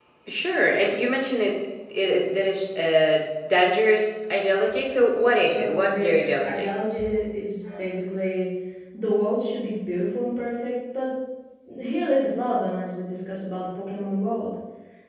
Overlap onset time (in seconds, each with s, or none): 5.3 s